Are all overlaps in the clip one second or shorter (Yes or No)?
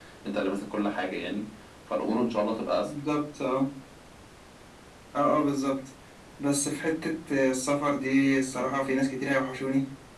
Yes